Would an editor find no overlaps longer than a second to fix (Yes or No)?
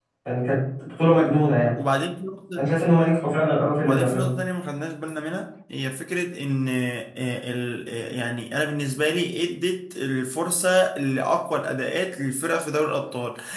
Yes